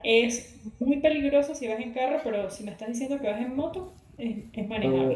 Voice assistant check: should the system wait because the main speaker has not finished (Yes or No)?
No